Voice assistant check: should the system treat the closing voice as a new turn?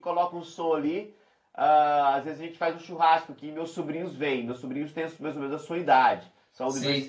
No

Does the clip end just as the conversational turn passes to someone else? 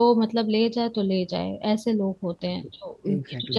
Yes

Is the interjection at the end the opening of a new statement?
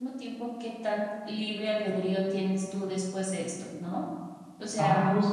Yes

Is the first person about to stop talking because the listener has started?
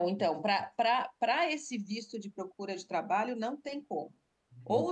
No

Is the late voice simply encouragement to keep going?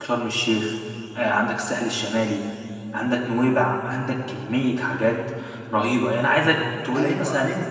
No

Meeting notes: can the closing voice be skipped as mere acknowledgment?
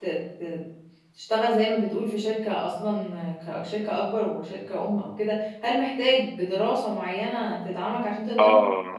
No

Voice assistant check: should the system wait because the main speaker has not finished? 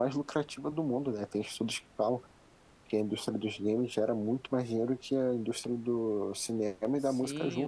No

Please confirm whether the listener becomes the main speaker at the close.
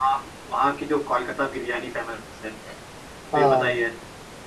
No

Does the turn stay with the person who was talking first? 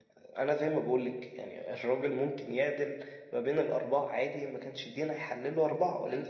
No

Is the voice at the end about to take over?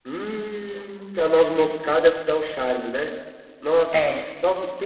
No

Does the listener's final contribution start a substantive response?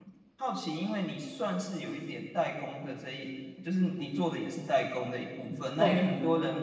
No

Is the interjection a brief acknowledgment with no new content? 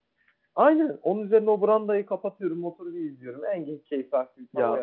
No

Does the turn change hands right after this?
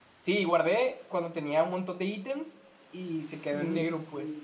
No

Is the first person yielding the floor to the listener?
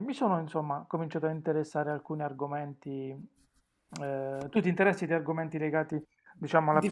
Yes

